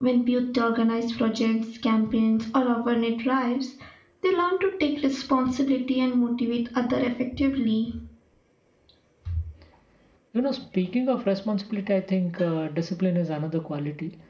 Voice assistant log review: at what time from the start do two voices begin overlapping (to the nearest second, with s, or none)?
none